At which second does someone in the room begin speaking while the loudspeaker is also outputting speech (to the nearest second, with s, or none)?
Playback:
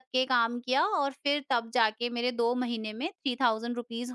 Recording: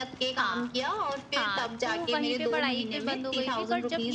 0 s